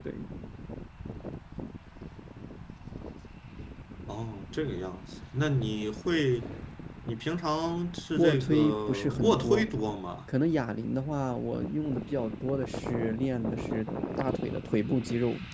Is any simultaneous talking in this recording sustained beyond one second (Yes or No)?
Yes